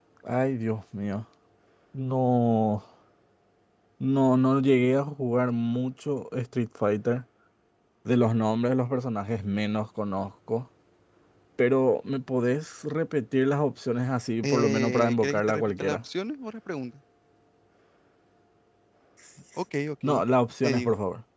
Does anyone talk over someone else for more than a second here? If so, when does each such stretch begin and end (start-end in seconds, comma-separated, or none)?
14.4-16.0